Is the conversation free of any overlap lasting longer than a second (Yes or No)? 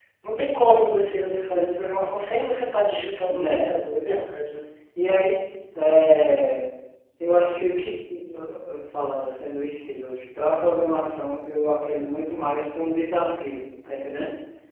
Yes